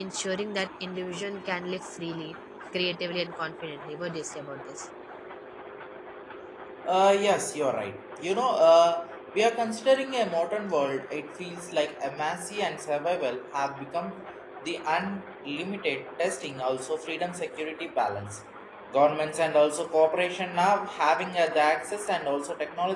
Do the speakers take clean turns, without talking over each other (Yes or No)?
Yes